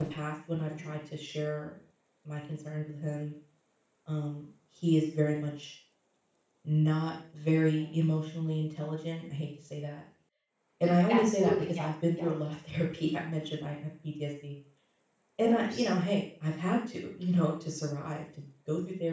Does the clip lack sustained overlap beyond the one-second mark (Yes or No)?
No